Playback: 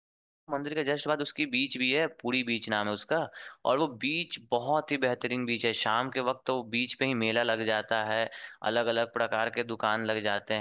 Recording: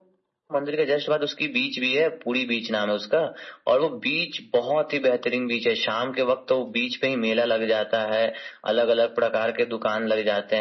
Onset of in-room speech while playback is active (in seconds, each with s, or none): none